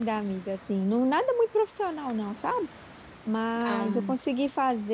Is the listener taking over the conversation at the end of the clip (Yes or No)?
No